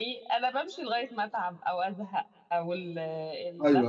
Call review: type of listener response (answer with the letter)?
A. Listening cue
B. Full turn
A